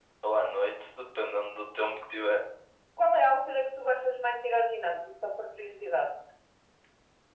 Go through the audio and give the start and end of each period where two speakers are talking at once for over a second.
none

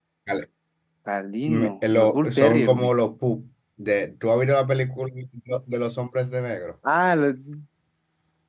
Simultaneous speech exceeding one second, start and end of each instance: 1.4-2.9

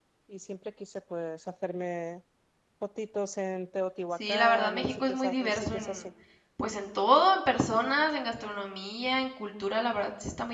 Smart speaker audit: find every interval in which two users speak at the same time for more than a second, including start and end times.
4.3-6.1

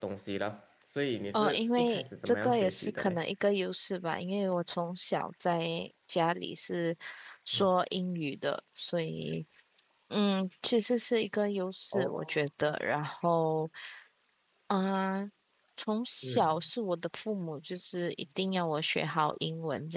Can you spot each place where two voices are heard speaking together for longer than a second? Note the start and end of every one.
1.3-3.2

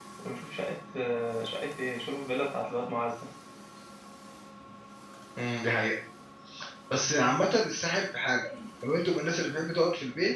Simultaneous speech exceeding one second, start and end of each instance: none

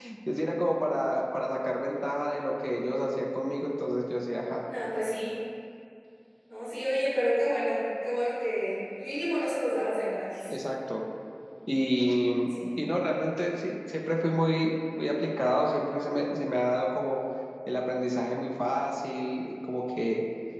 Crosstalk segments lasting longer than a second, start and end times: none

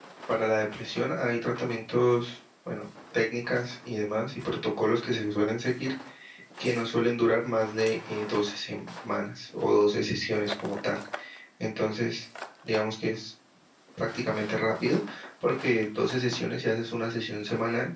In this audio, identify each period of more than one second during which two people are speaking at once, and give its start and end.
none

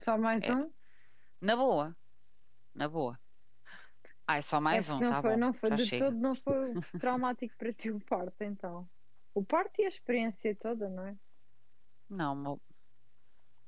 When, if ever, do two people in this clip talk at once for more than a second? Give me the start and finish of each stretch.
4.7-6.1

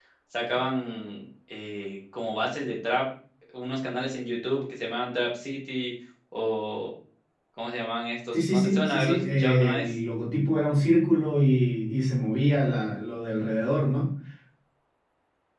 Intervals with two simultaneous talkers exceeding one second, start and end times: 8.3-9.9

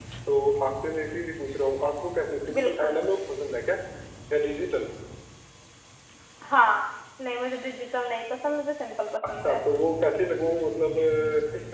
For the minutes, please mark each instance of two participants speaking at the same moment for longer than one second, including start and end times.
none

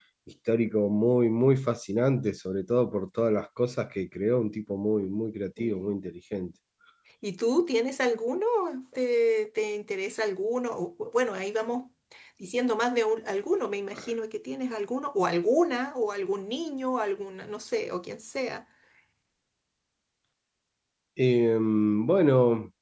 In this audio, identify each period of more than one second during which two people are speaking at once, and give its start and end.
none

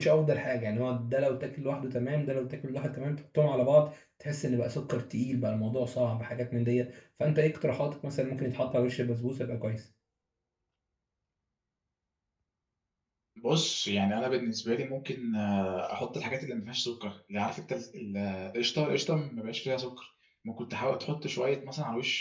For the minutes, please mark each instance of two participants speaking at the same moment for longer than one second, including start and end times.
none

